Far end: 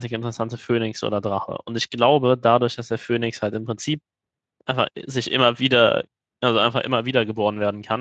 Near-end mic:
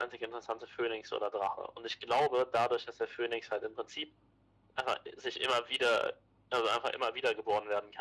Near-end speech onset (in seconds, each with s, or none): none